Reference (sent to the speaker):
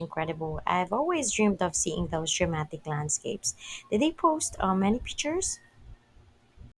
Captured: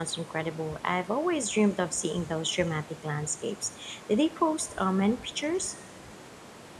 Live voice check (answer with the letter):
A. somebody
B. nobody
B